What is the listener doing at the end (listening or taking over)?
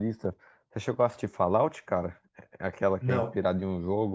listening